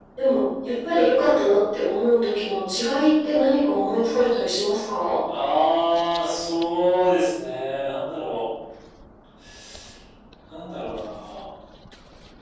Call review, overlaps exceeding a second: none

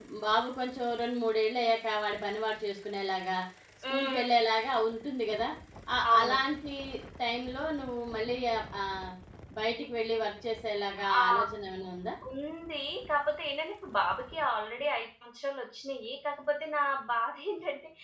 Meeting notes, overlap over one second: none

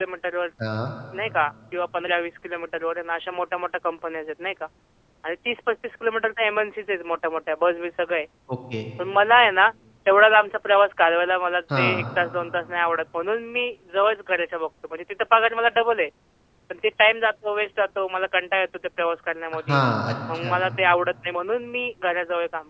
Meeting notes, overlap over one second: none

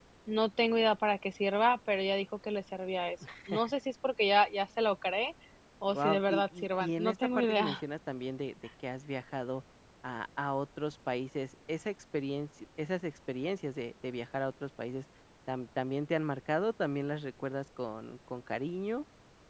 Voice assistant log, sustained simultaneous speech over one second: present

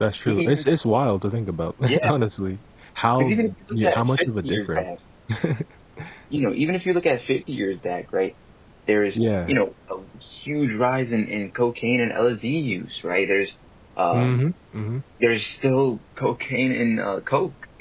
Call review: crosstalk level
present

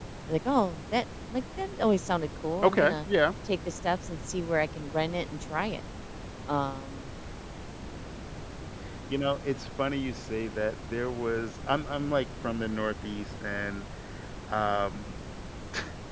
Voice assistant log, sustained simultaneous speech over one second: none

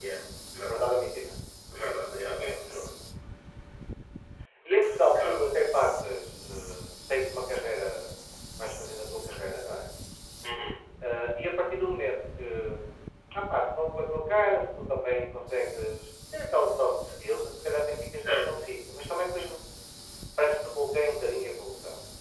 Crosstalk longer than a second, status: none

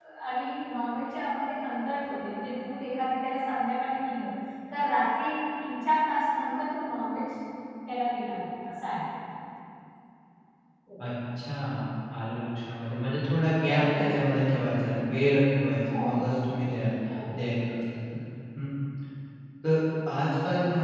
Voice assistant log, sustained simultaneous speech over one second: none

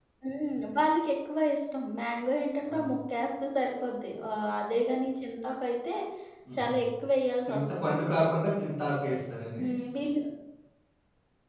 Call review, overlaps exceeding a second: none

